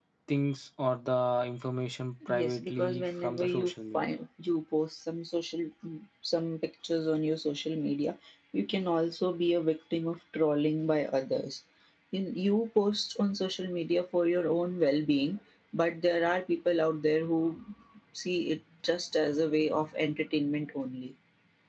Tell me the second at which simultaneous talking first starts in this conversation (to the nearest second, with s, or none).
2 s